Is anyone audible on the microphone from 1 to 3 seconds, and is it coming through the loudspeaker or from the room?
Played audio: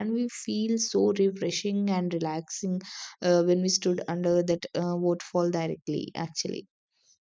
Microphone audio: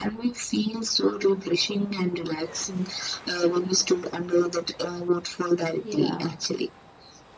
echo only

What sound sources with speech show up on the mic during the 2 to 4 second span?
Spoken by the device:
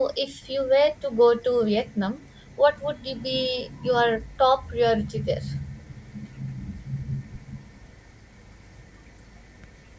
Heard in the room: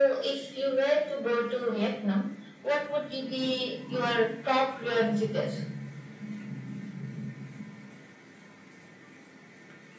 echo only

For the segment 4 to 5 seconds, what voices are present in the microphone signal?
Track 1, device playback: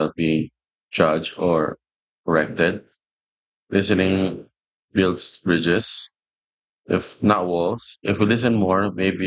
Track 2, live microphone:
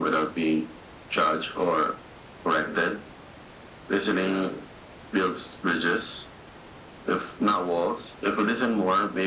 echo only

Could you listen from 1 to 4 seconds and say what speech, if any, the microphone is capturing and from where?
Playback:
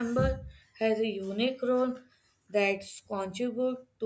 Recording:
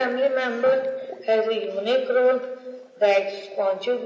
echo only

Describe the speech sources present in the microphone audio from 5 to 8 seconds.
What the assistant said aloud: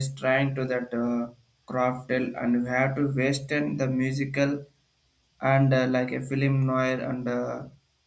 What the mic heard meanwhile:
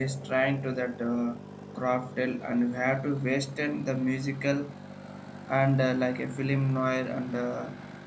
echo only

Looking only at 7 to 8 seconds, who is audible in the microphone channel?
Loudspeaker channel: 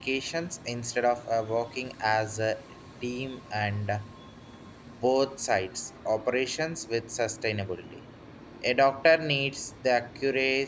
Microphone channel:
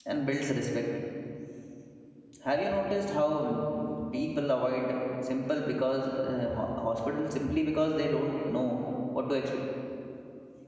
user only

